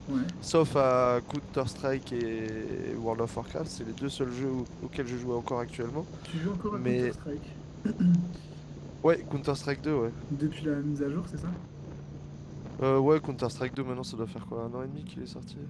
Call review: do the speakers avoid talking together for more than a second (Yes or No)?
Yes